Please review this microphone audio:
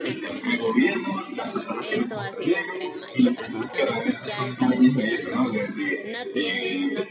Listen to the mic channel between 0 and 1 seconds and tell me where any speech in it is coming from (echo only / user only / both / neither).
both